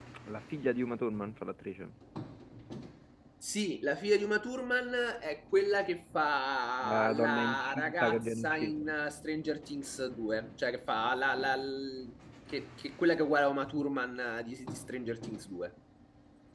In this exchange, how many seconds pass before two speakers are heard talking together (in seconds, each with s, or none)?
6.8 s